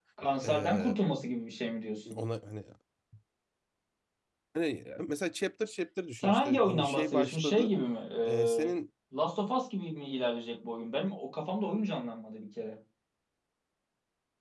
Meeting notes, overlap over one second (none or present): present